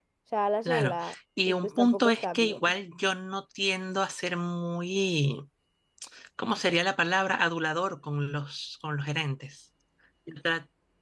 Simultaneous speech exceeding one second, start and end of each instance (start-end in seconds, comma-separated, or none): 1.4-2.7